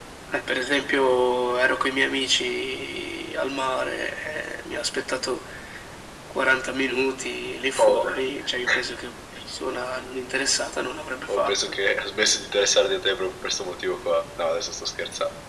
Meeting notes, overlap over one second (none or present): none